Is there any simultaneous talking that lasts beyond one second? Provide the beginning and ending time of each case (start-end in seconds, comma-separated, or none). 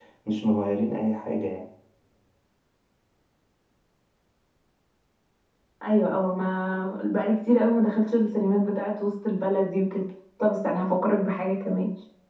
none